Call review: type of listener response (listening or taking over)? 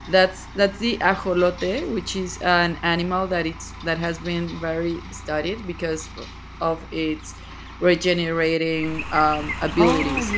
taking over